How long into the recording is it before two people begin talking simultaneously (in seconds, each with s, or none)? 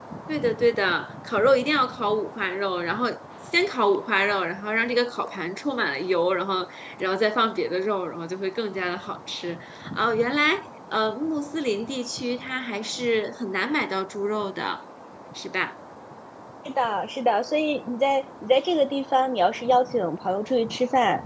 none